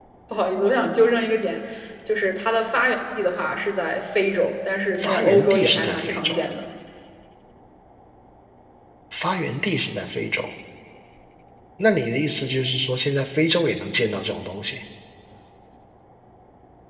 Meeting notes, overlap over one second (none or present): present